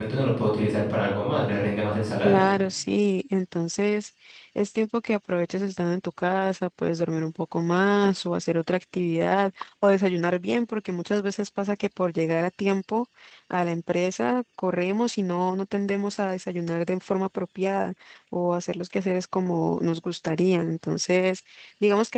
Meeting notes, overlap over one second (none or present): none